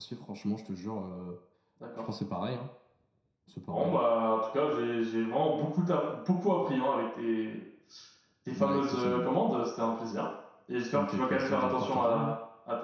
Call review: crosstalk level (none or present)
present